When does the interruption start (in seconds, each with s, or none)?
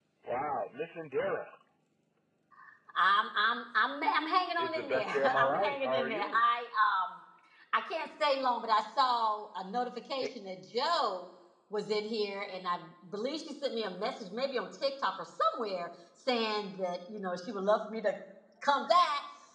4.6 s